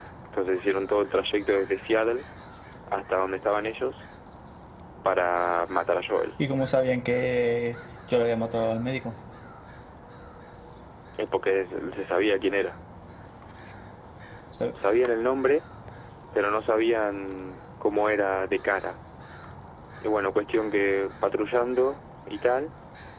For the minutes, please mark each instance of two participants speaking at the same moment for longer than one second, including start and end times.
none

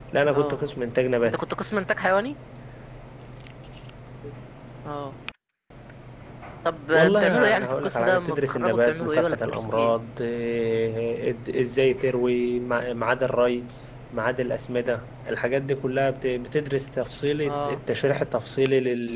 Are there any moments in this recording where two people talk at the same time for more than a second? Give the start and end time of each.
6.9-10.0

